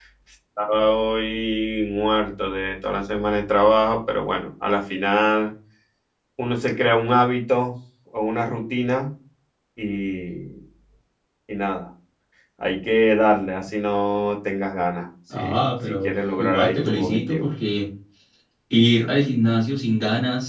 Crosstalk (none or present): present